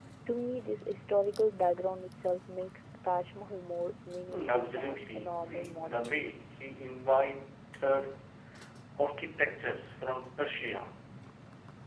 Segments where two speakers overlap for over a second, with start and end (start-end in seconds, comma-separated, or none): 4.3-6.2